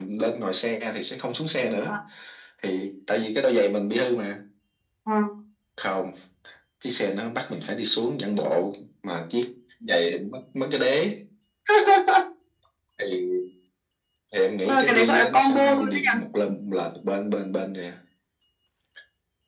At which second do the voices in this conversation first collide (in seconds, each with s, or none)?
14.6 s